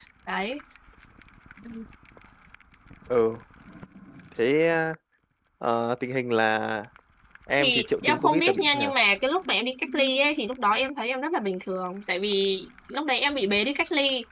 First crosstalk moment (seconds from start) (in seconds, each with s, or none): 7.6 s